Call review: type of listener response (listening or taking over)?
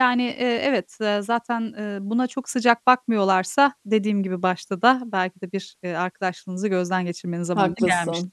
taking over